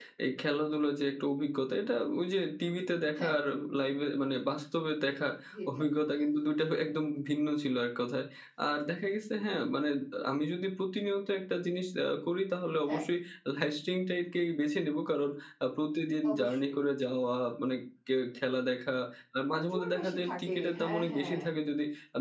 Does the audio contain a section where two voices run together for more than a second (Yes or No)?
Yes